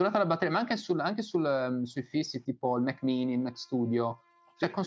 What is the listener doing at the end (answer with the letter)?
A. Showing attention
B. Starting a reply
A